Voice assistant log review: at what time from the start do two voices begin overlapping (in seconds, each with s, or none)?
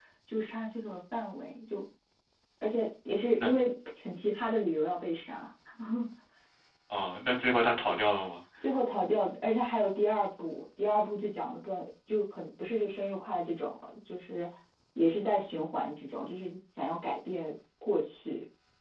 none